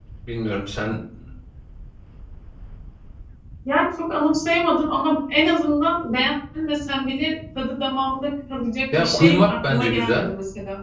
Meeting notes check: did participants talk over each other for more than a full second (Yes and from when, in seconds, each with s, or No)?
Yes, from 8.9 s